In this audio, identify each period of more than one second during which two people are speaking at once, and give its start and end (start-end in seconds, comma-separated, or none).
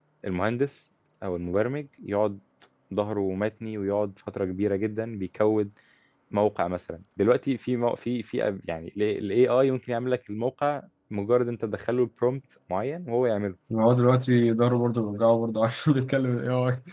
none